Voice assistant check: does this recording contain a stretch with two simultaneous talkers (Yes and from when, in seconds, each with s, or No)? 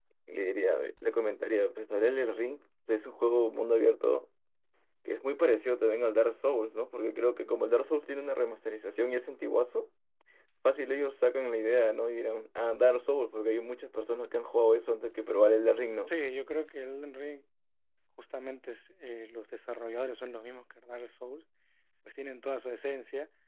No